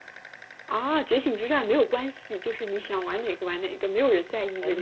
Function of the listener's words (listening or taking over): taking over